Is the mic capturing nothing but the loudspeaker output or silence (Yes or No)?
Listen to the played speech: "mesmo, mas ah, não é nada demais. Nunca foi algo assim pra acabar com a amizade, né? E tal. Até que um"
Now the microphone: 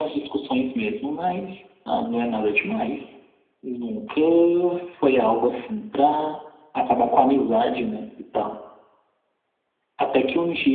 Yes